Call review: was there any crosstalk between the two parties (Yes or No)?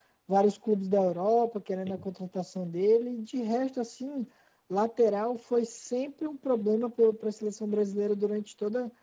No